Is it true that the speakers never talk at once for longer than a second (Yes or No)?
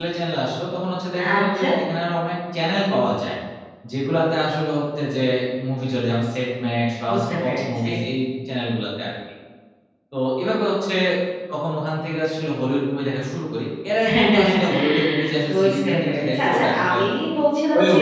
No